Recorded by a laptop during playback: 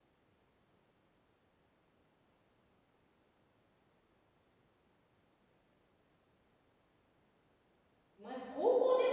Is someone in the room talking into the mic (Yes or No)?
Yes